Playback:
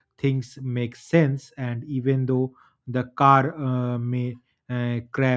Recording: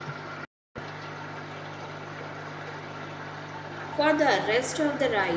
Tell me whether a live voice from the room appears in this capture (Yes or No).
Yes